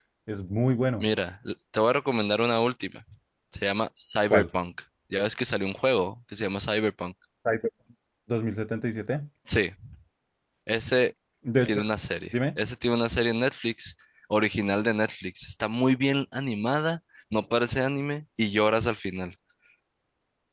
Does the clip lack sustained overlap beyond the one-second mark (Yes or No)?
Yes